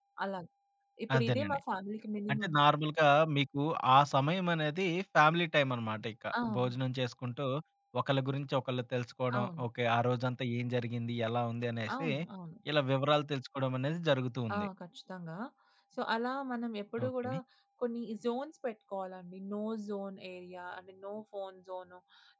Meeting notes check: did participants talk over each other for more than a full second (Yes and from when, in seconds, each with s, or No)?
No